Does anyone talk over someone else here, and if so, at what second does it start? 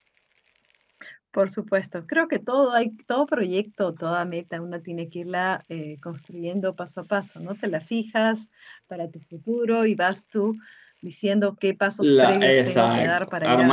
12.0 s

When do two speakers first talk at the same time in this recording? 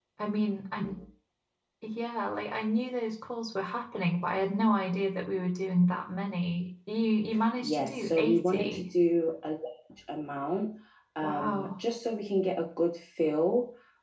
7.6 s

